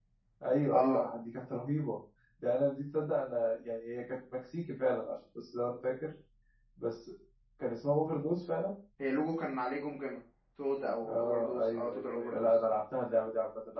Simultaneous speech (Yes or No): Yes